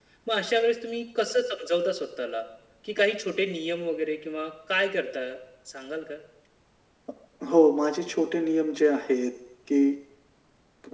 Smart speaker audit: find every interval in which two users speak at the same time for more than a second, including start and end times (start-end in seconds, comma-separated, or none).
none